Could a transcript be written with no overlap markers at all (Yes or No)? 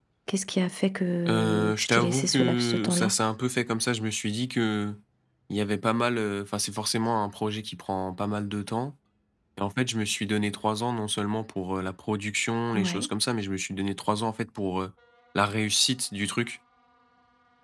No